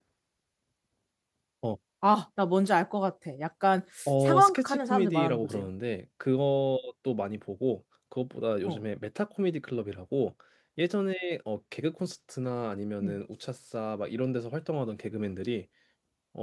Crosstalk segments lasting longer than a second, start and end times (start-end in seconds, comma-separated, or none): 4.1-5.6